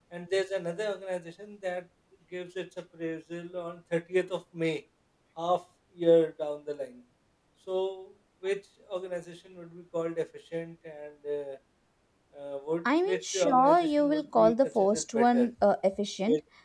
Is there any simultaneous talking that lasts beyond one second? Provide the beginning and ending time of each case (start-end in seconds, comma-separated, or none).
13.1-15.5